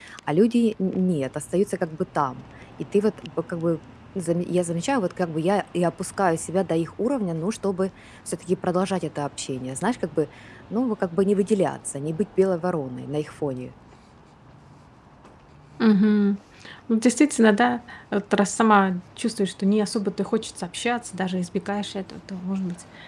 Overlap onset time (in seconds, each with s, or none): none